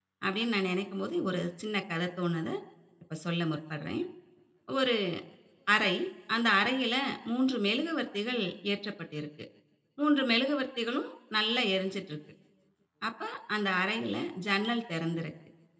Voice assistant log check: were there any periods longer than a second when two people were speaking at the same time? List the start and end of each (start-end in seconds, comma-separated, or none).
none